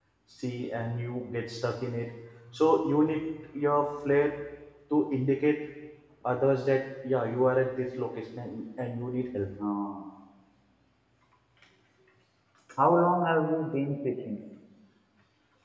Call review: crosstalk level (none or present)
none